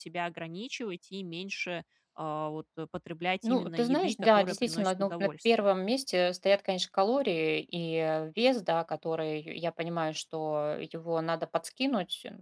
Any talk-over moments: Yes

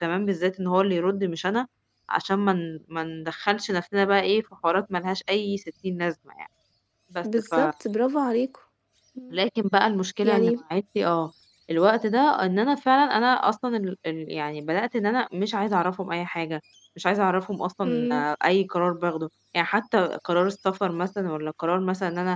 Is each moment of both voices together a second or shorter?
Yes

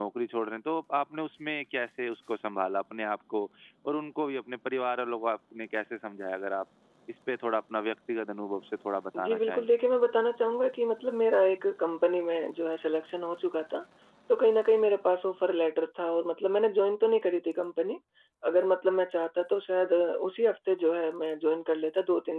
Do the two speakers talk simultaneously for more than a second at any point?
No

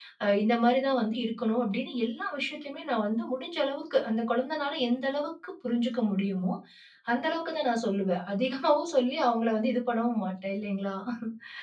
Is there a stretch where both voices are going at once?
No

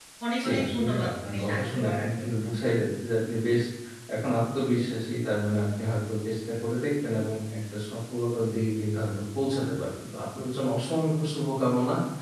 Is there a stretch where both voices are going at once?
Yes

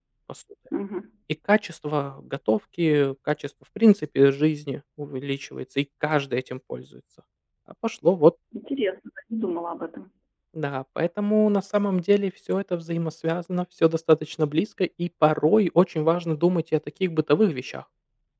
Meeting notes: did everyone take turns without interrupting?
Yes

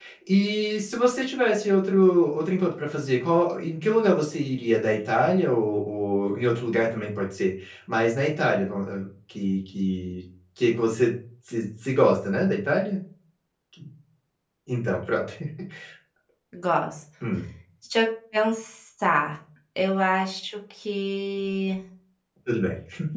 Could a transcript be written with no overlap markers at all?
Yes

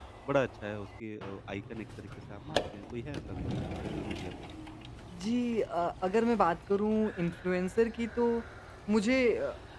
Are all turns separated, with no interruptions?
Yes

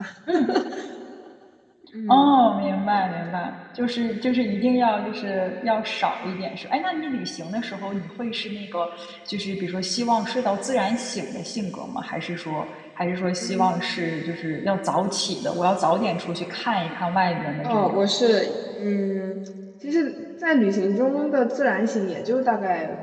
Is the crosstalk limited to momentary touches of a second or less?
Yes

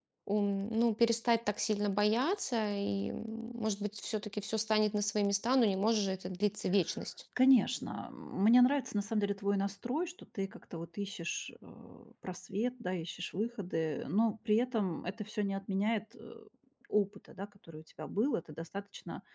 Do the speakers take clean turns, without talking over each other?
Yes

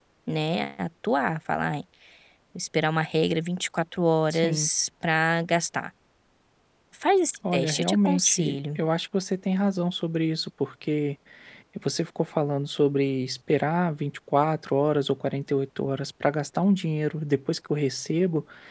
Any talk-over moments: Yes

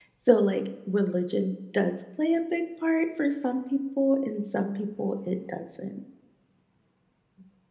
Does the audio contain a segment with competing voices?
No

